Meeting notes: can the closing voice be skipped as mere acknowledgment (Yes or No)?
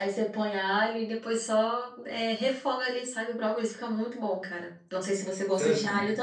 No